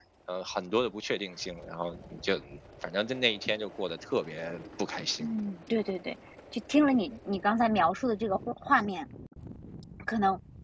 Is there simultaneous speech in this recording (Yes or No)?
No